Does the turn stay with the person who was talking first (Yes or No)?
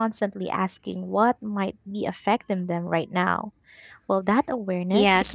No